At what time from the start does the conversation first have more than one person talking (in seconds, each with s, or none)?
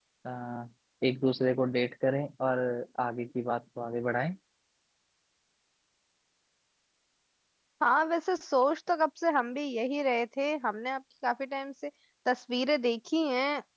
none